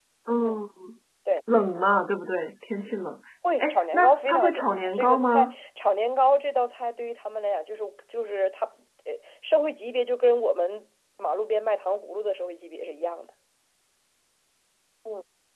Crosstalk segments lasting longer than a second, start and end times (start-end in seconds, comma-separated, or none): 3.6-5.5